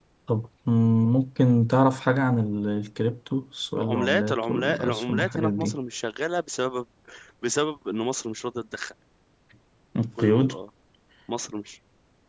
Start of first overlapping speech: 3.8 s

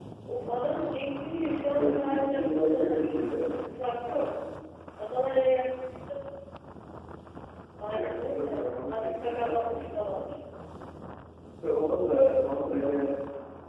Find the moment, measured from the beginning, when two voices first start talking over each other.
1.7 s

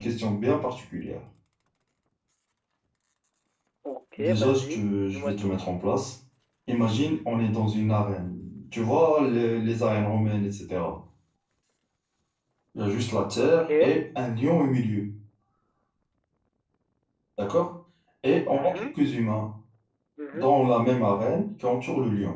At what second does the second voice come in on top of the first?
4.2 s

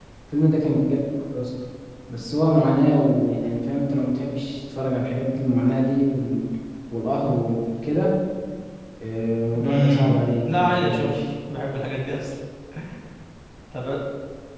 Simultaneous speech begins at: 9.6 s

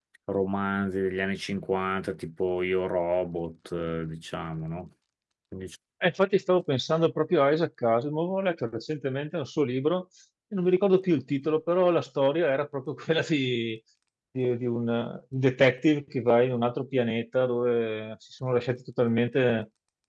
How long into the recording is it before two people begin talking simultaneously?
none

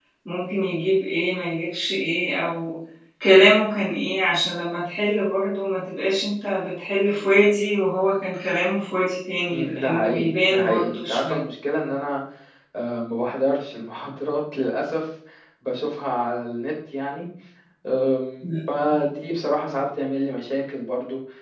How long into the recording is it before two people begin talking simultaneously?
9.5 s

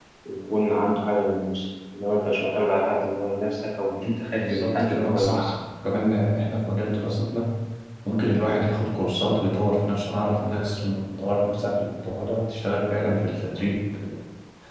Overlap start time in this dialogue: 4.3 s

